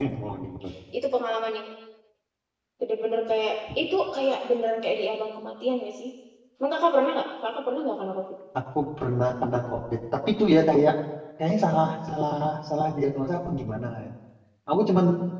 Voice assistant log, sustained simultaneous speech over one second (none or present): none